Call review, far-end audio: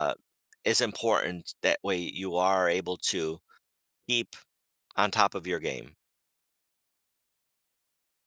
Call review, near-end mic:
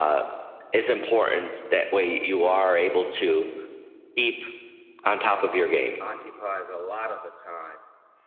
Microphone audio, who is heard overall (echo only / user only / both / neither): both